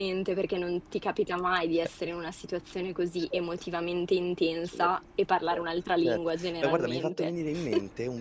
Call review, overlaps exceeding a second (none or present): present